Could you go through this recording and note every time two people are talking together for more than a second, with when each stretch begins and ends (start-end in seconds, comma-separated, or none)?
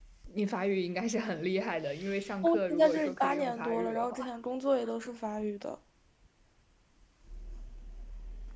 2.4-4.2